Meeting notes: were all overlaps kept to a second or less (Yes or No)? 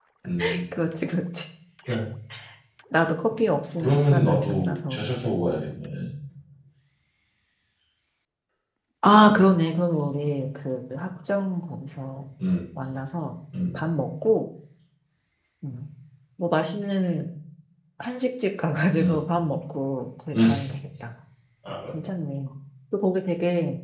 No